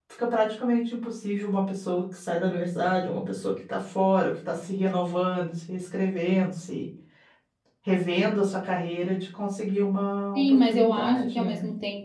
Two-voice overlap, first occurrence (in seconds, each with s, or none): 10.3 s